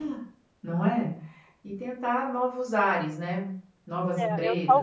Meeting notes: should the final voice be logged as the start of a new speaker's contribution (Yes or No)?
Yes